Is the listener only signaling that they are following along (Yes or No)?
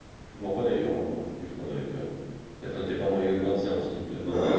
No